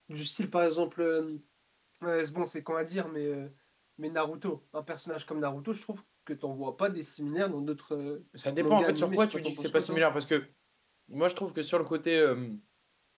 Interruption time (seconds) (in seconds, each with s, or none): 8.6 s